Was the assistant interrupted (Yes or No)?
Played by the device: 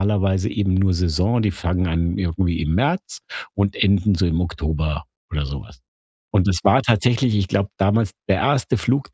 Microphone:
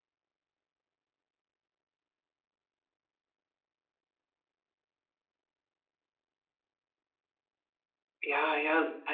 Yes